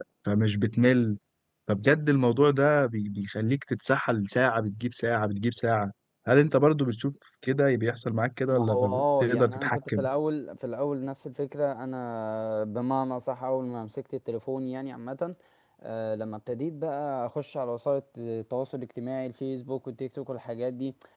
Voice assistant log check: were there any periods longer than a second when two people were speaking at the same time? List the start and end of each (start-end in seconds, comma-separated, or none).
8.5-10.0